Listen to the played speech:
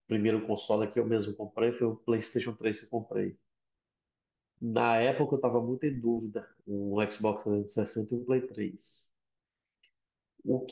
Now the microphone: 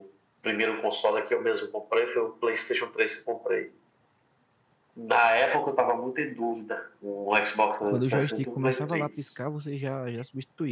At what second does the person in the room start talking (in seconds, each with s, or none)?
7.8 s